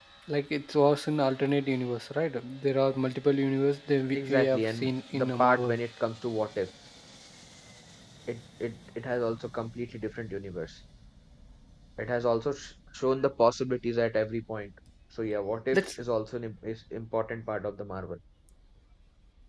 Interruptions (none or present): present